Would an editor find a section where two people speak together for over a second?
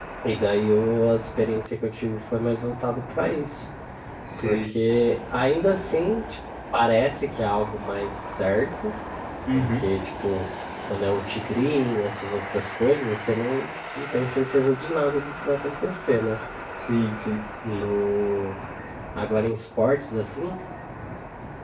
No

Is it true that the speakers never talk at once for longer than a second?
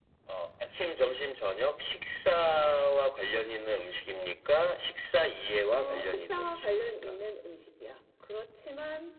No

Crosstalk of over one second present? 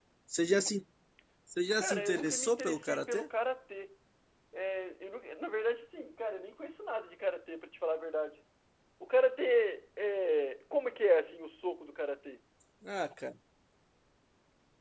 Yes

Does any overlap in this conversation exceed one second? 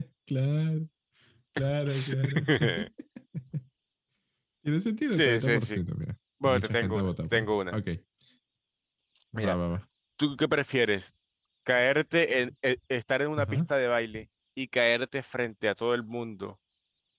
Yes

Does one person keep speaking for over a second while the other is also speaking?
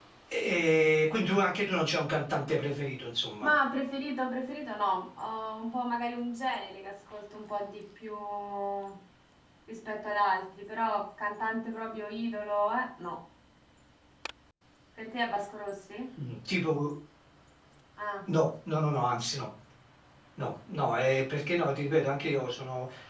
No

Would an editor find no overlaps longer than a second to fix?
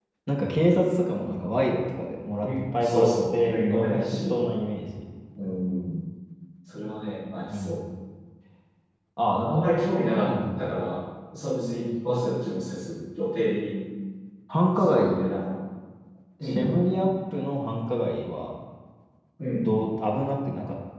No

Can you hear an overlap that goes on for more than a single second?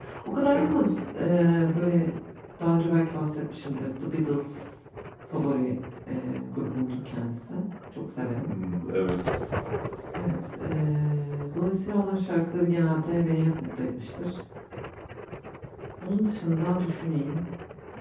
No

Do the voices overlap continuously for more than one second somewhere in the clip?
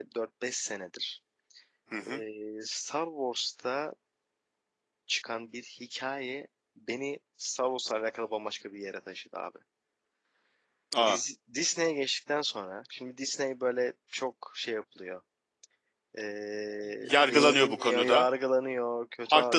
Yes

